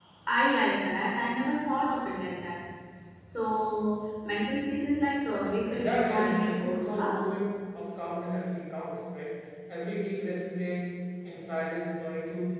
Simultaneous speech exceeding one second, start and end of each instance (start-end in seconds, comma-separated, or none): 5.7-7.2